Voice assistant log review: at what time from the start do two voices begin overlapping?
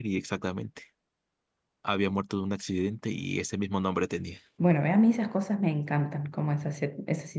none

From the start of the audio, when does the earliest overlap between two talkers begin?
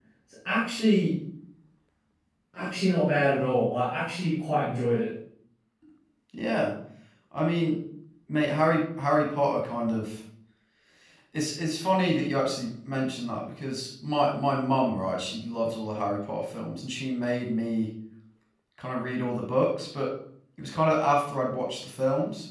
none

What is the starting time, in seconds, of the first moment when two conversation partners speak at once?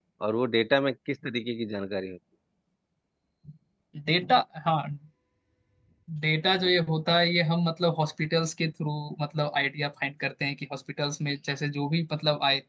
none

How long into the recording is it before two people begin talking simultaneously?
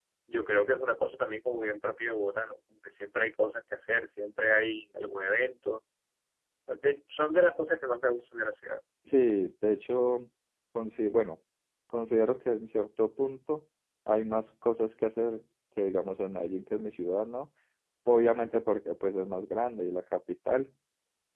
none

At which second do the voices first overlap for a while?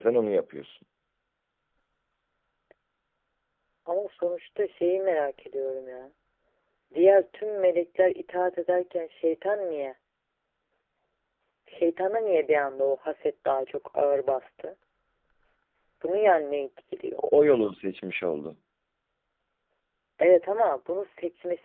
none

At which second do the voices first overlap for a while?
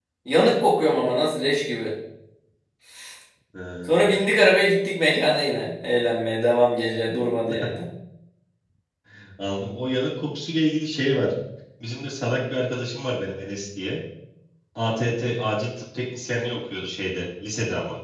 none

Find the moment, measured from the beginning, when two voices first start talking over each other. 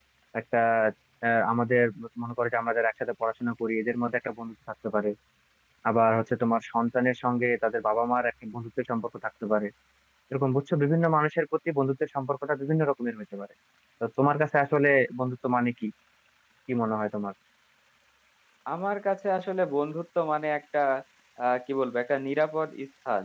none

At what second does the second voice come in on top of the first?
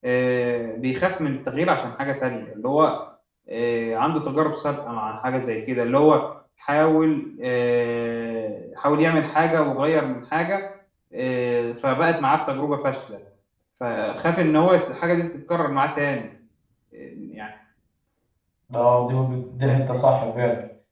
none

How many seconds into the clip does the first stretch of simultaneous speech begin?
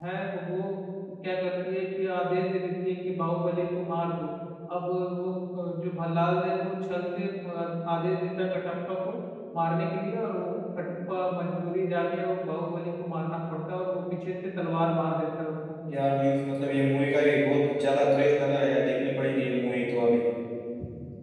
none

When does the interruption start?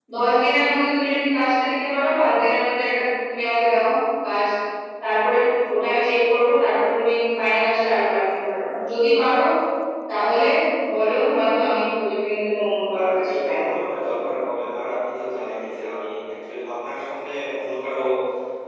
12.9 s

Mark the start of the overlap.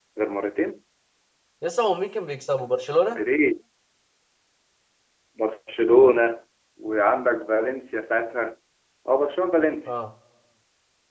none

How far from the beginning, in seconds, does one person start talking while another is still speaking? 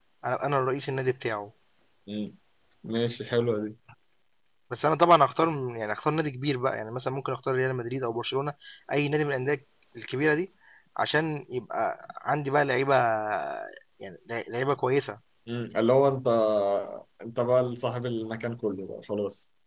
none

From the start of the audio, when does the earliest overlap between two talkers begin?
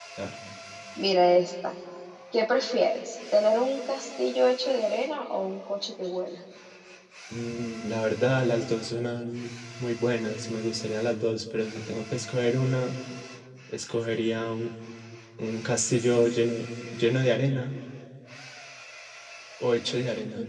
none

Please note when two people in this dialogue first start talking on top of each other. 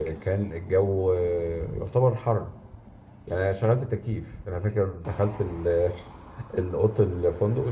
none

